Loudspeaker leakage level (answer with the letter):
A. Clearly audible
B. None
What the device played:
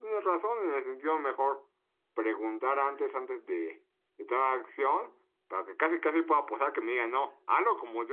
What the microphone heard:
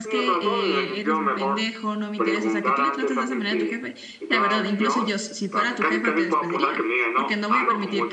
A